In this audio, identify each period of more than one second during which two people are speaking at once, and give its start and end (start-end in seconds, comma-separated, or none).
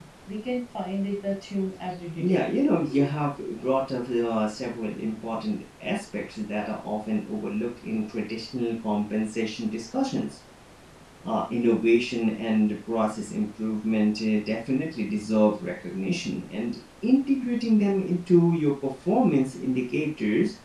none